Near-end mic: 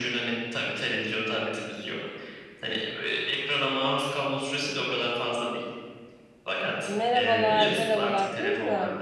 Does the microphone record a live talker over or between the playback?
Yes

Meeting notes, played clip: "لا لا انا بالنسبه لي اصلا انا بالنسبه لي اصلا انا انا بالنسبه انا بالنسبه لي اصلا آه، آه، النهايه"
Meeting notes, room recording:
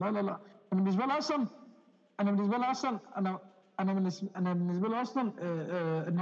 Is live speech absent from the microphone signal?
Yes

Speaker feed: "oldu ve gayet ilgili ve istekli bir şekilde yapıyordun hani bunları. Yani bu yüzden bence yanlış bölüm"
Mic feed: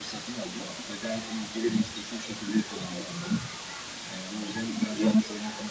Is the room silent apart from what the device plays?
Yes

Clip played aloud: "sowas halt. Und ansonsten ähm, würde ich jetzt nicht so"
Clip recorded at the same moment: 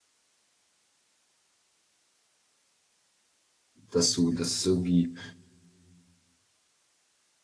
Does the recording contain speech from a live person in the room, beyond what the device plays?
Yes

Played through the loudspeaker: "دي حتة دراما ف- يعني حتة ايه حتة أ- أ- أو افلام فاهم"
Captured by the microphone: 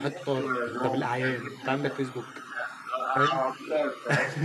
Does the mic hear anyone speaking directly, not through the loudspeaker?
Yes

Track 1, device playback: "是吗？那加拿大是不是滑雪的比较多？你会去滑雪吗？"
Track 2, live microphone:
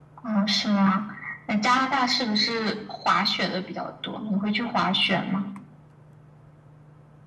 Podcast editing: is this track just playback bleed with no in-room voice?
Yes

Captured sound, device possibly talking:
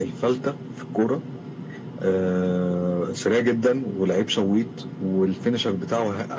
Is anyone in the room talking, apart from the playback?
No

